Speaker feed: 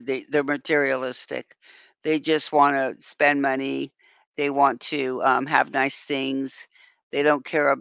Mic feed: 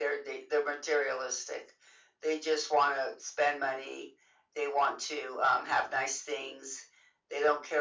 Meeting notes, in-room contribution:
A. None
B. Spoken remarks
A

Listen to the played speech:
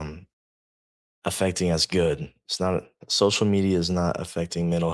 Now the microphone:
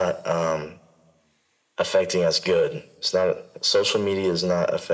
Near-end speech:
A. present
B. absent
B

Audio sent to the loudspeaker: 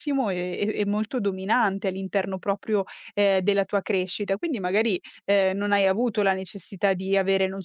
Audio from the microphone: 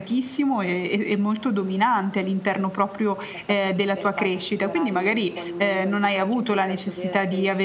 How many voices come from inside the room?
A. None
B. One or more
B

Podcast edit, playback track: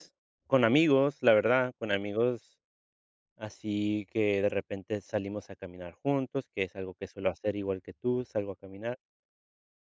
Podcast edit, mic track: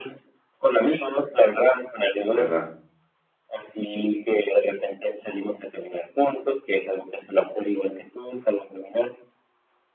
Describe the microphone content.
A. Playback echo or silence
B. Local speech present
B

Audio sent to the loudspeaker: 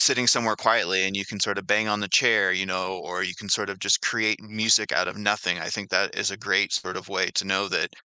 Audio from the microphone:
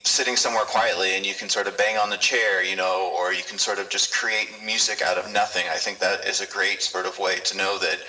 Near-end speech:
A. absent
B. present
A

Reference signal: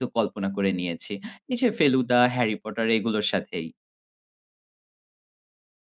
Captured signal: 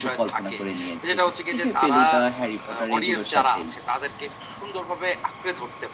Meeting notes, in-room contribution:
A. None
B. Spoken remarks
B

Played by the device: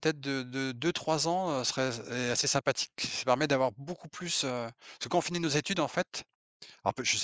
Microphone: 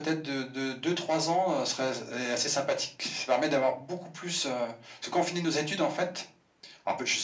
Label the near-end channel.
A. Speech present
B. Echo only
B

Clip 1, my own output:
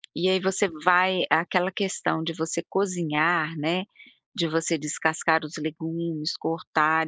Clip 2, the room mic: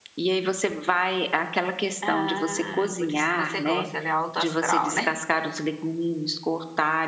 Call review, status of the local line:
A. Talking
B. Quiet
A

